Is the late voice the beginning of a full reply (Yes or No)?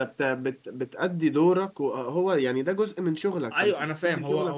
Yes